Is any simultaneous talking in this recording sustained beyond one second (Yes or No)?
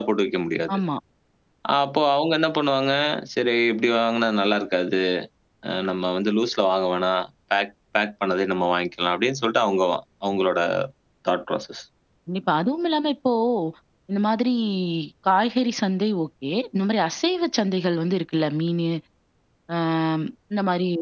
No